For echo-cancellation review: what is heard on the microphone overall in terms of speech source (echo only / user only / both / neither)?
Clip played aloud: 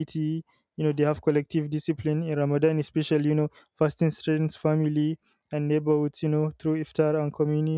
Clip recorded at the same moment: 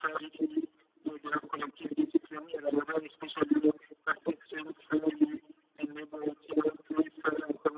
echo only